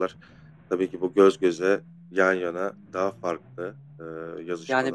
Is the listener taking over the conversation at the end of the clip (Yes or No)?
Yes